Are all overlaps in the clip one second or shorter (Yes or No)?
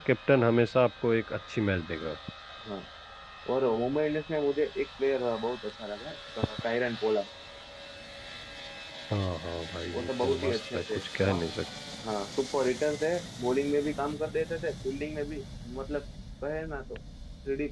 No